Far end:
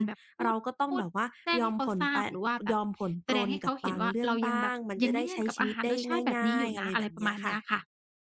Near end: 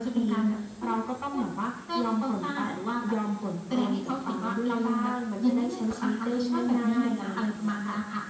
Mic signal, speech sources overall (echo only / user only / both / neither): echo only